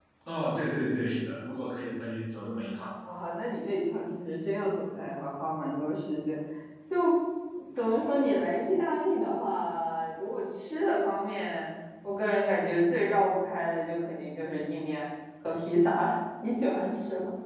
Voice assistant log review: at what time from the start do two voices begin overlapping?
none

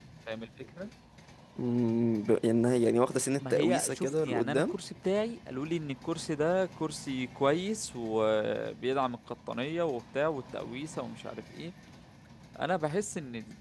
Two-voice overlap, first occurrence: 3.4 s

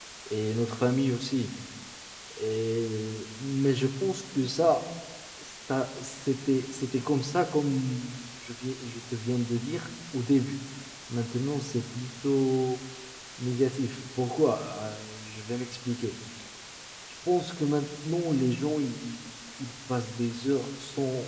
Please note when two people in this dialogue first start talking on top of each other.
none

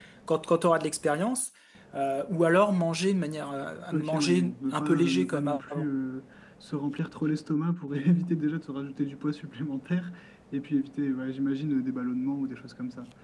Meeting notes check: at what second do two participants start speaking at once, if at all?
3.9 s

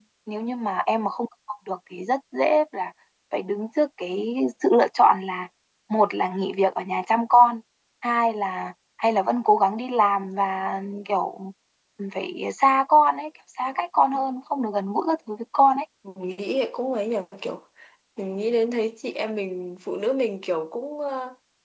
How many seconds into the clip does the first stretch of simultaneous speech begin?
none

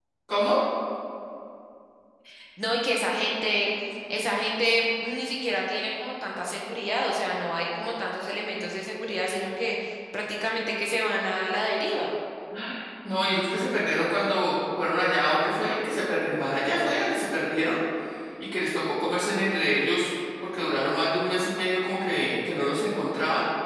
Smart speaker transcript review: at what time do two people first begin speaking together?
none

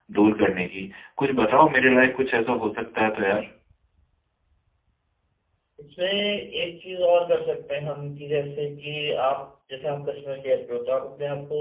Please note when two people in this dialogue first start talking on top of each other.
none

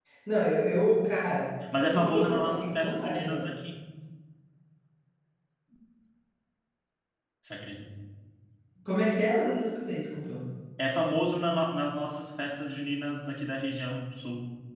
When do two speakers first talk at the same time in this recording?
1.6 s

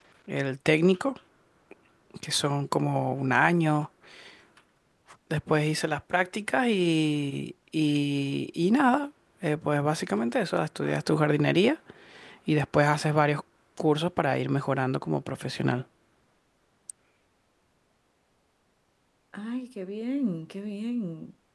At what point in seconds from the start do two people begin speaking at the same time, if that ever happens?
none

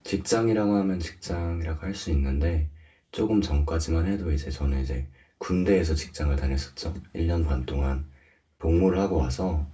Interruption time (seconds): none

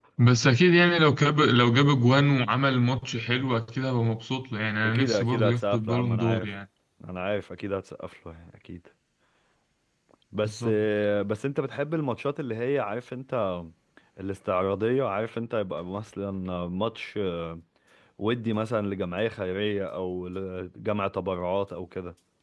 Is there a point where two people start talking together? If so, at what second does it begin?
4.8 s

